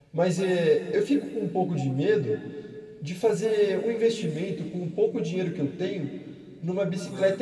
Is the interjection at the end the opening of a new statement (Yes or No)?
No